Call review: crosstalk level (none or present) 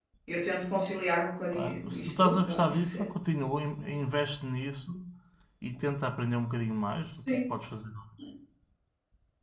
present